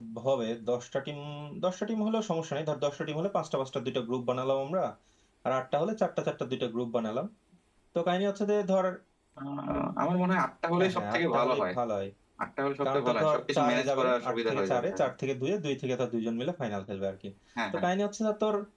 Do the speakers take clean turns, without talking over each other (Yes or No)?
No